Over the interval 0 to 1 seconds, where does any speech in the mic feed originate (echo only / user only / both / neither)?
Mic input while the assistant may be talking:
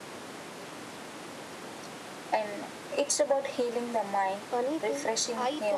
neither